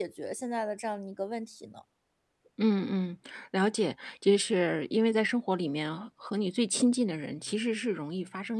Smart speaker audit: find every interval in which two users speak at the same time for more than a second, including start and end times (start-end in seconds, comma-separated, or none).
none